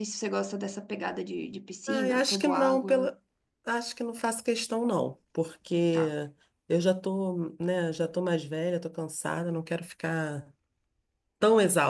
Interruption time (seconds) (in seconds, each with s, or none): 1.9 s